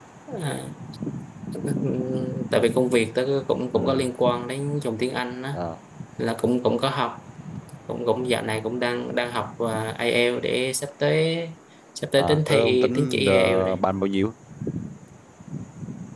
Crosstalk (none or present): present